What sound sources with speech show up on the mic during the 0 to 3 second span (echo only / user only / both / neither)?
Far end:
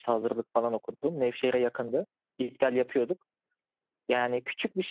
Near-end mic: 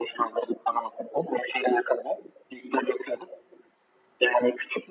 echo only